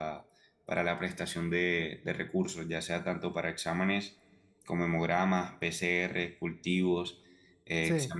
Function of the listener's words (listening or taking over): listening